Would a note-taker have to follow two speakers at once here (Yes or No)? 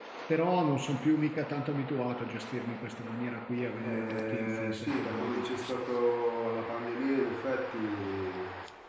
Yes